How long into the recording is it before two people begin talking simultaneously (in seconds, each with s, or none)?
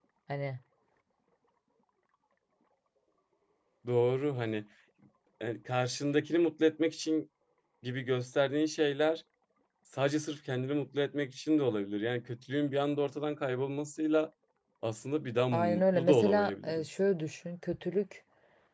15.5 s